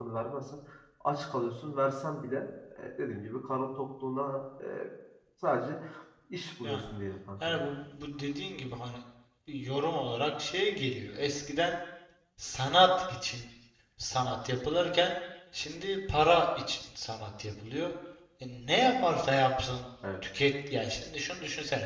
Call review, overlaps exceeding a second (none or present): none